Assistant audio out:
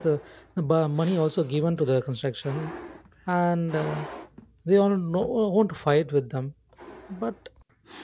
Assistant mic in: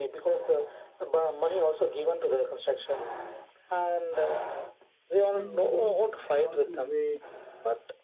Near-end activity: present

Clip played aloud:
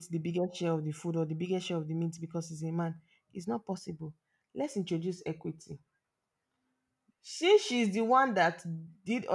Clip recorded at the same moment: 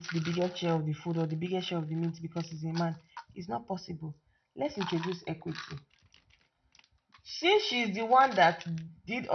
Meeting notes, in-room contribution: none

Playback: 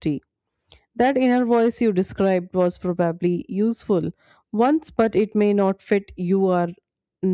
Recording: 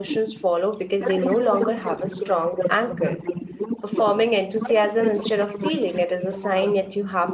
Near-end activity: present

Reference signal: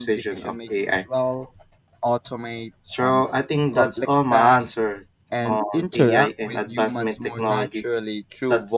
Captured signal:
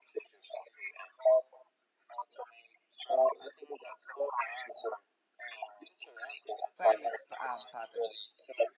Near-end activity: present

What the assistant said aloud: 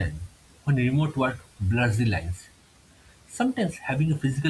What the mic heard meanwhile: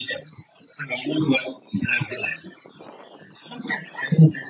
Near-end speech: none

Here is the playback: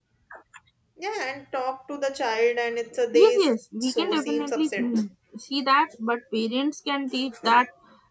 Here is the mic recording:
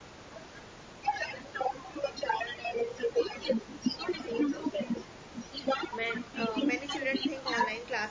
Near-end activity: present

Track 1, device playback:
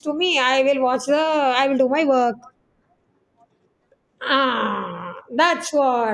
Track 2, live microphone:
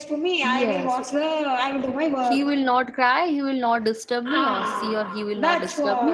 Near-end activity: present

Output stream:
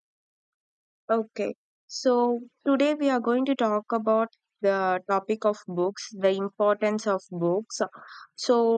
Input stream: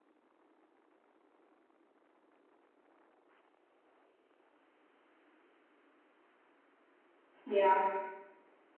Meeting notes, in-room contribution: present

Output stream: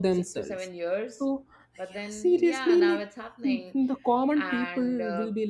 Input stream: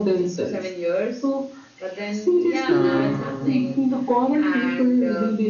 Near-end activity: present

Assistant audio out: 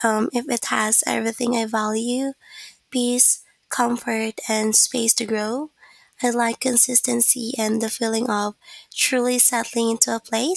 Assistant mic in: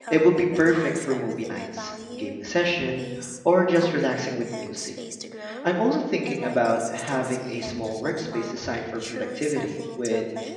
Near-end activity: present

